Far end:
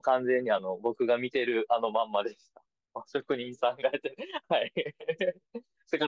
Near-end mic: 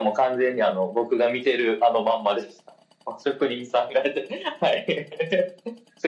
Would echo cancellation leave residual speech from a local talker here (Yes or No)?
No